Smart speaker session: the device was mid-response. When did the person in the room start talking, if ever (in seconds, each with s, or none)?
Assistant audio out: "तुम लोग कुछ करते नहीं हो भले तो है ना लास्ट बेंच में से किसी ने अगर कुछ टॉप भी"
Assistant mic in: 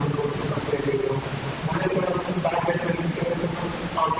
none